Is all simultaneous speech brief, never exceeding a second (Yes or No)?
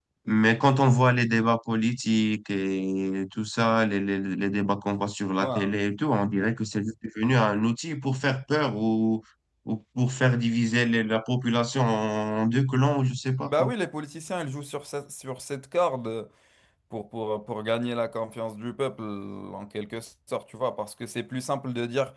Yes